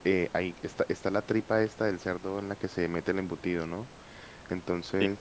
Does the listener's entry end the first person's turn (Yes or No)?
No